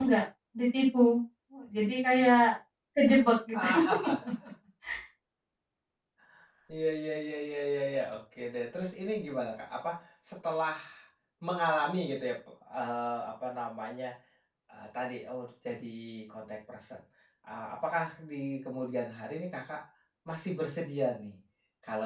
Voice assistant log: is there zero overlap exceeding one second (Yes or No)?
Yes